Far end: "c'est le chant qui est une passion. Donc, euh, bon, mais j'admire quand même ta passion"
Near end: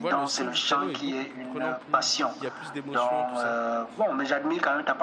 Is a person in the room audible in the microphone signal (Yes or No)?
Yes